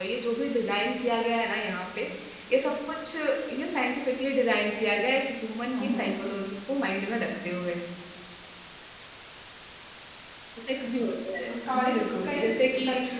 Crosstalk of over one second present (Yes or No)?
Yes